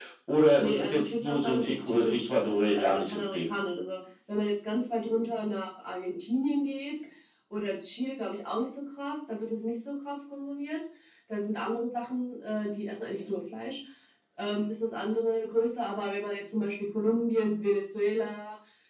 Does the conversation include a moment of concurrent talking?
Yes, from 0.6 s

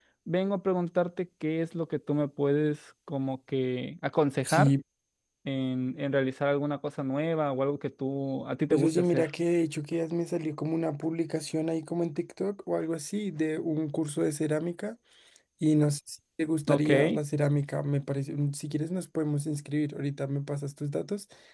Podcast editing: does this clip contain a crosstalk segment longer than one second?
No

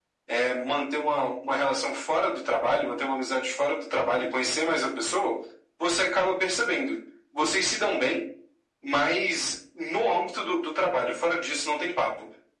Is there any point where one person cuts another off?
No

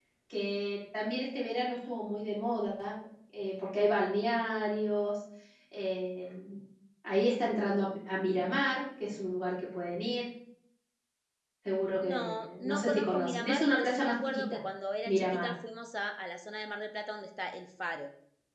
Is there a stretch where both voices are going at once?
Yes, from 12.0 s

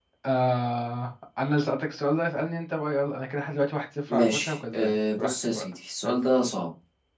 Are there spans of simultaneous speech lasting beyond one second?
Yes, from 4.1 s

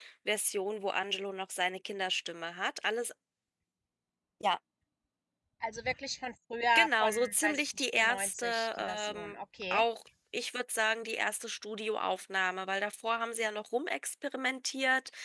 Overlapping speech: Yes, from 6.8 s

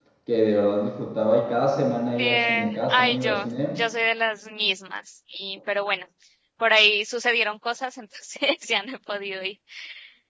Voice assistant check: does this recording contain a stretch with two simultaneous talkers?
Yes, from 2.2 s

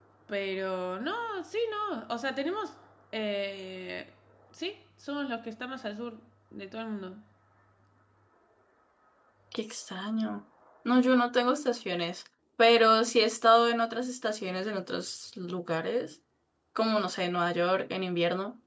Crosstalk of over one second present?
No

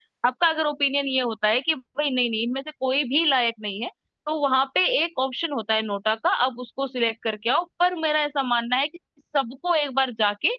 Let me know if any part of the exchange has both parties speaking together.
No

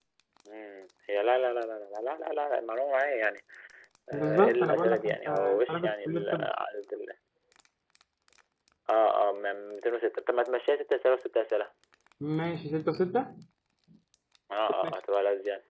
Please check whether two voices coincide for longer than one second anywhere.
Yes, from 4.1 s

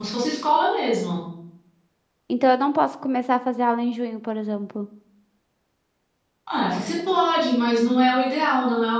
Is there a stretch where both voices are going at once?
No

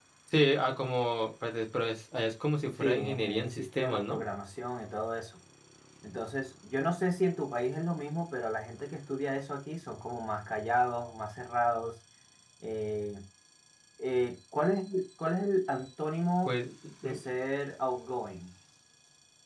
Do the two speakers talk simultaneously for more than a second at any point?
Yes, from 2.8 s

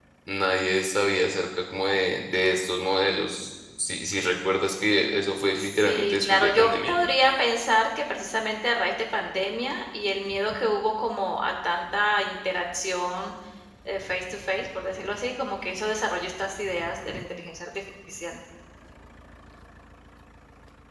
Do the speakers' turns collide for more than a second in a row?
Yes, from 5.6 s

